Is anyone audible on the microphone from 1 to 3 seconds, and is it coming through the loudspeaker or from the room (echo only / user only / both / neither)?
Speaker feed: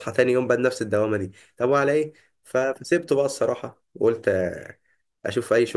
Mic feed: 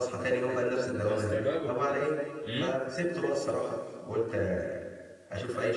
both